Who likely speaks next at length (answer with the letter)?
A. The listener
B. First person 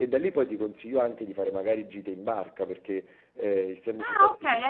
A